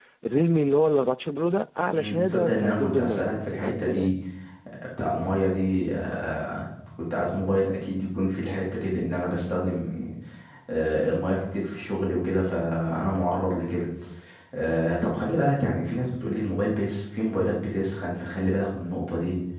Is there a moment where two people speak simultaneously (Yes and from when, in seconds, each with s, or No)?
Yes, from 1.9 s